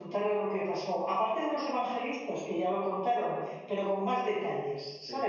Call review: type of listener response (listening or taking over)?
taking over